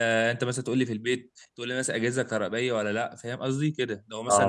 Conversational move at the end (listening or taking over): listening